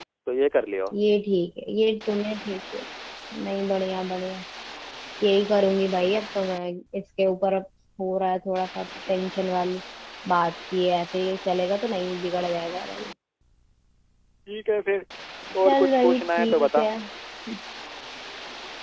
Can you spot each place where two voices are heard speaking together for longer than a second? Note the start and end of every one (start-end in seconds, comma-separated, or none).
15.6-16.9